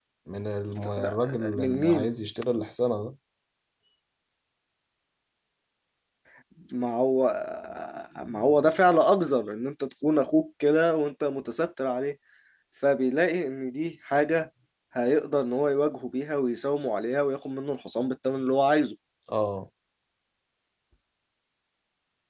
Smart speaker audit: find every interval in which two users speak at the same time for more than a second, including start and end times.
0.8-2.1

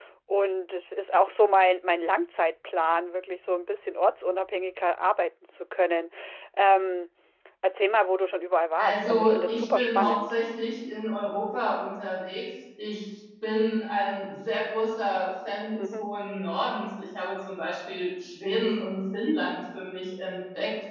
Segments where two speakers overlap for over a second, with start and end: 8.8-10.4

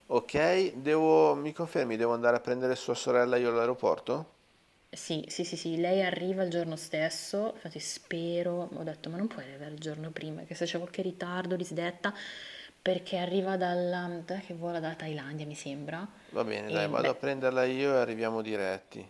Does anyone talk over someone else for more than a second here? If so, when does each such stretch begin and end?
none

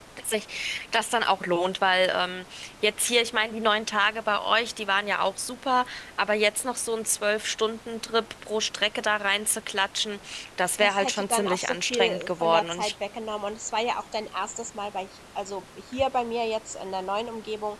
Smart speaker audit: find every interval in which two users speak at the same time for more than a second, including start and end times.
10.8-12.9

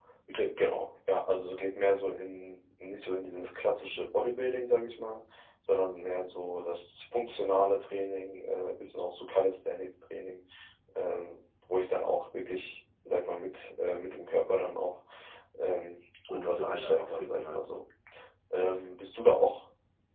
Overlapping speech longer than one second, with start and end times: 16.3-17.6

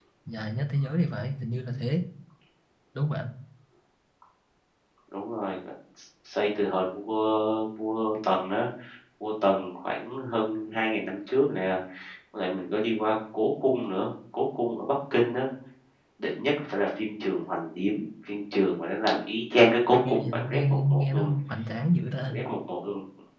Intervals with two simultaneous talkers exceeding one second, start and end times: 20.1-21.3

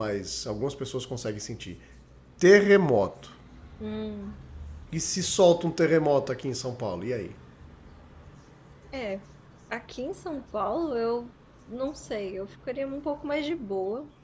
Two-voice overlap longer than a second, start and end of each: none

